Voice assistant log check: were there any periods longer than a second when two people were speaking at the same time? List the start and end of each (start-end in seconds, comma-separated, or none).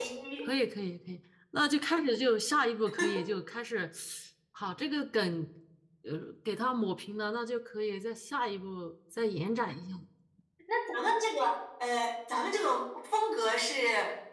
none